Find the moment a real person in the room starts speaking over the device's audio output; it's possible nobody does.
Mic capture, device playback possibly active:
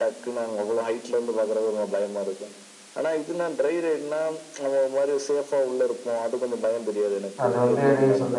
7.4 s

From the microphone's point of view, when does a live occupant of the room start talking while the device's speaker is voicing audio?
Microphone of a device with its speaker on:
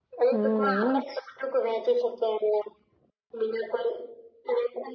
0.3 s

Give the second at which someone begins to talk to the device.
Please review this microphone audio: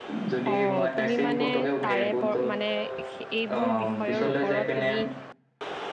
0.5 s

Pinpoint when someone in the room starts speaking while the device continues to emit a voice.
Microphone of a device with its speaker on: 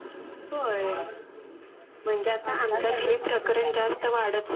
2.5 s

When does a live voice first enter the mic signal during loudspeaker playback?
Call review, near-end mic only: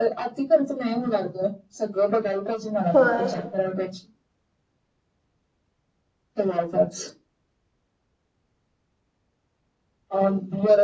3.0 s

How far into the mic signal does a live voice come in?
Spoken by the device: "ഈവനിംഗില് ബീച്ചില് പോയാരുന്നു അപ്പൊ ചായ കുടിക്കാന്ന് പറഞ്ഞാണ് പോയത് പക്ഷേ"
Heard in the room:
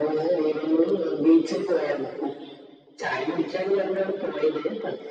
none

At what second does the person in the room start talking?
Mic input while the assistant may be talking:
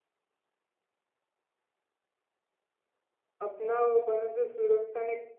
3.4 s

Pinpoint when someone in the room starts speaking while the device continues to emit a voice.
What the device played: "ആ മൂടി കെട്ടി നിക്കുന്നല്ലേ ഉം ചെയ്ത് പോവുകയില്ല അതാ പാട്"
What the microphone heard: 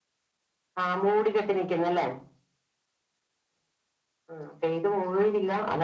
none

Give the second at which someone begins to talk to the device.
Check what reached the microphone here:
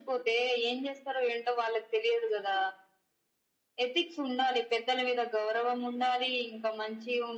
none

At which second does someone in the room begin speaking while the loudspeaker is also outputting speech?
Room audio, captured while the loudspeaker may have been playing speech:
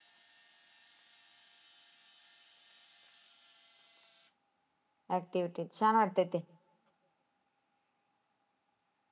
5.2 s

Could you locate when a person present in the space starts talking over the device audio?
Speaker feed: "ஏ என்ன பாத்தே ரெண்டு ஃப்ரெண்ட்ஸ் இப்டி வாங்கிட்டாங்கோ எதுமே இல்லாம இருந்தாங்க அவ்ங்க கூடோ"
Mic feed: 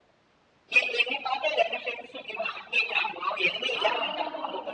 3.8 s

